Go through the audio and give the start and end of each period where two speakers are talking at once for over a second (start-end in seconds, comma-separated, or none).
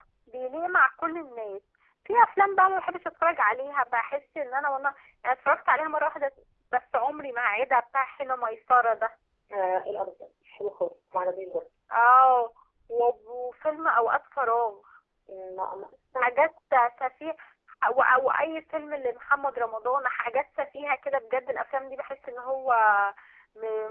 none